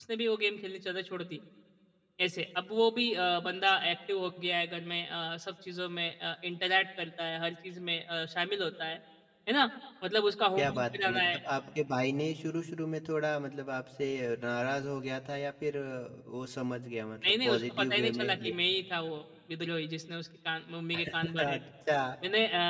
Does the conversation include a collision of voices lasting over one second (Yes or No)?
Yes